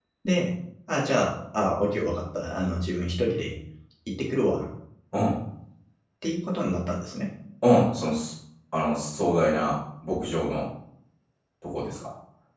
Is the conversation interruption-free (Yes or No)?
Yes